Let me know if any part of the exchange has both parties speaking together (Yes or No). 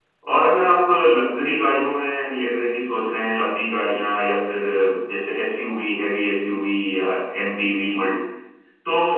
No